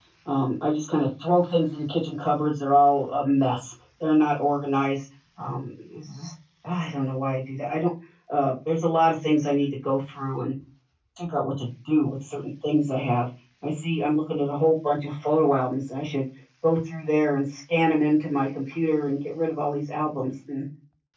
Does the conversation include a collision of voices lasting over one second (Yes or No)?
No